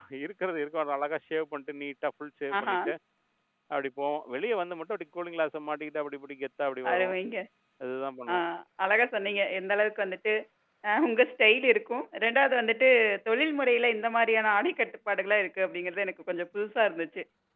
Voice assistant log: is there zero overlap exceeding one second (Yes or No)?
Yes